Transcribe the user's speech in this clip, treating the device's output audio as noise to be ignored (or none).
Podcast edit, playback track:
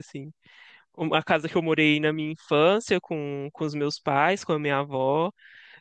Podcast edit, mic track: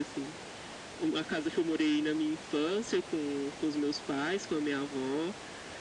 none